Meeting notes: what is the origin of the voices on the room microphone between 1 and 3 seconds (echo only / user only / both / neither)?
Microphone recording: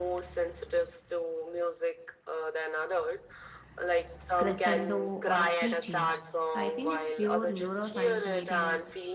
echo only